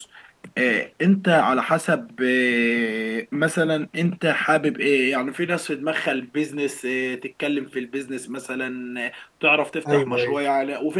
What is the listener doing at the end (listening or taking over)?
listening